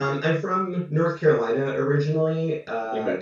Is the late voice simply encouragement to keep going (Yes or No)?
Yes